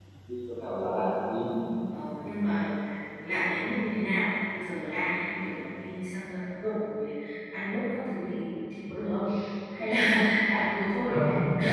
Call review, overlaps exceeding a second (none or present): none